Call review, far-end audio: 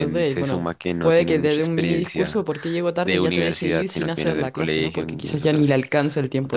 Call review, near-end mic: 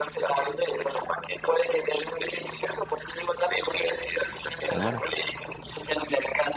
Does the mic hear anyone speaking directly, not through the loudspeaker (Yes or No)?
Yes